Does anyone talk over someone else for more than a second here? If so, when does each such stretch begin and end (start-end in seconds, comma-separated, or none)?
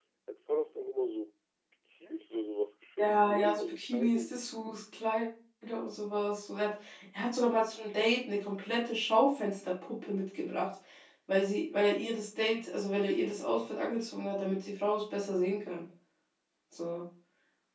3.0-4.3